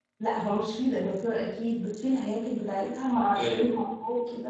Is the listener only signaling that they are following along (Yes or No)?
Yes